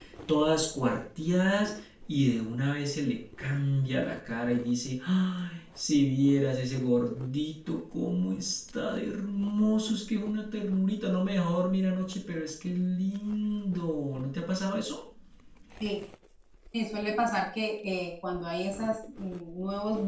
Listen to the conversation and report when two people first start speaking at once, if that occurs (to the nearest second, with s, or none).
none